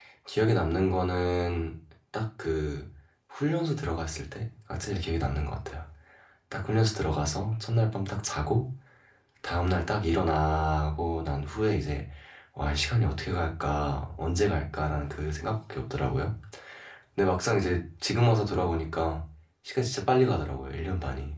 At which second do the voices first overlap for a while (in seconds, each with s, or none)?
none